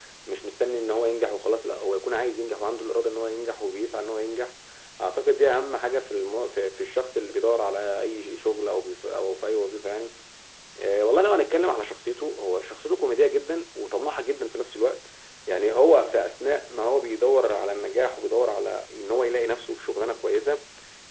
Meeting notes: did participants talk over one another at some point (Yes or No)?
No